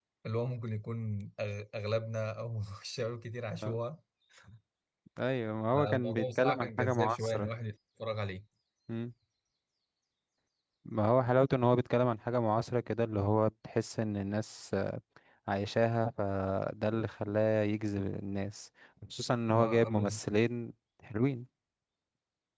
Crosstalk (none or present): present